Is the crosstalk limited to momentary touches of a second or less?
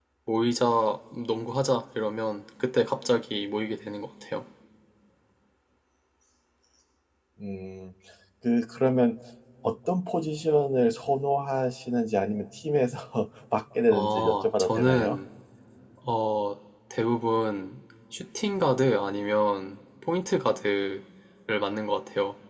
No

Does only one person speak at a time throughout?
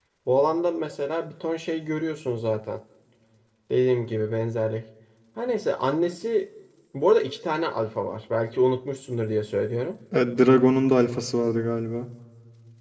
Yes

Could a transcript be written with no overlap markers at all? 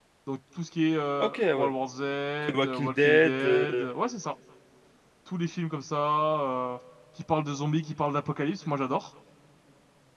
No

